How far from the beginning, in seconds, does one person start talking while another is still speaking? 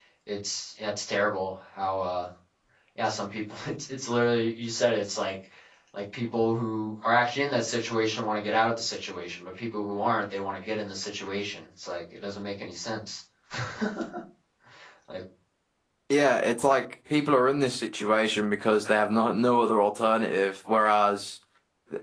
none

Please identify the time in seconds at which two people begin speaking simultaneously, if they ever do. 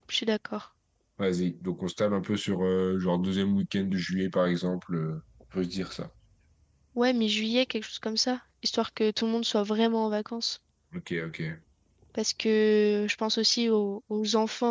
none

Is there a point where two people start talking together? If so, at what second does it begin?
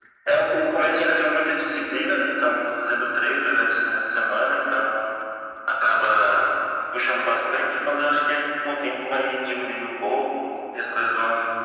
none

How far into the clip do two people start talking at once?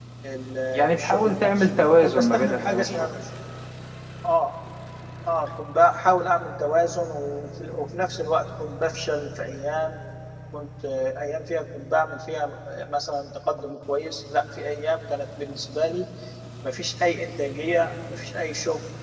0.9 s

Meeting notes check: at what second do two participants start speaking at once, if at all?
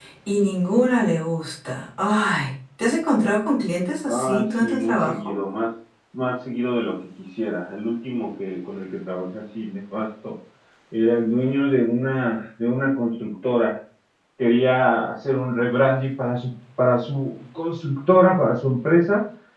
4.1 s

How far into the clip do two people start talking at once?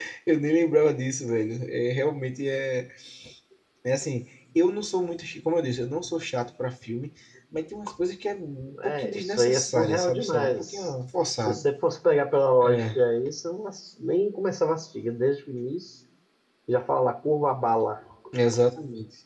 8.8 s

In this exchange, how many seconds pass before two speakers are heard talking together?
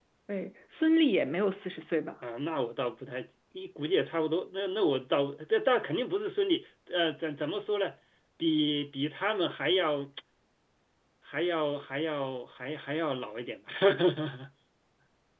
none

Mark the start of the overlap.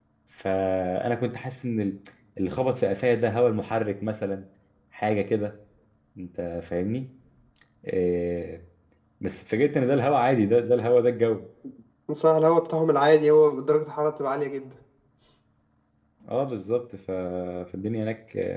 none

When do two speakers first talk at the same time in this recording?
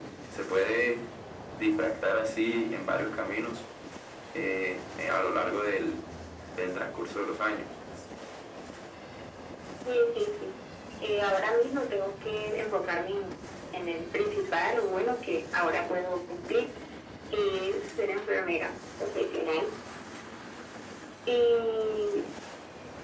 none

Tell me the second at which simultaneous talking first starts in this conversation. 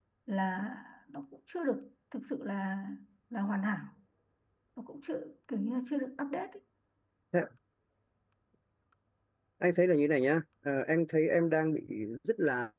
none

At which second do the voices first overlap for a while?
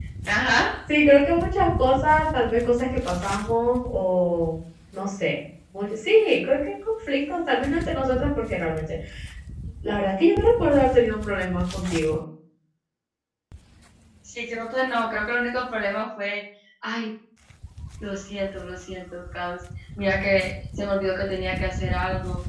none

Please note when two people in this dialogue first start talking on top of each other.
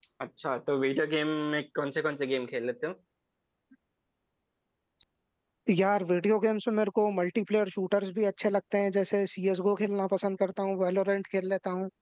none

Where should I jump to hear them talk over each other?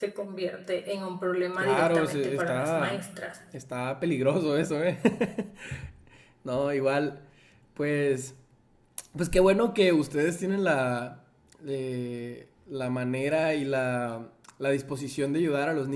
1.6 s

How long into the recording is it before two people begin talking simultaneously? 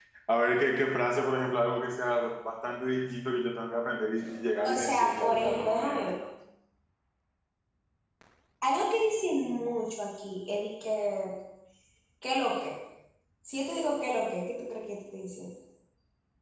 4.6 s

